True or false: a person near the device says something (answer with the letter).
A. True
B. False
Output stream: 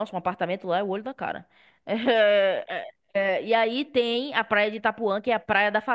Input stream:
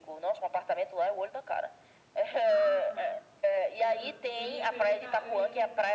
A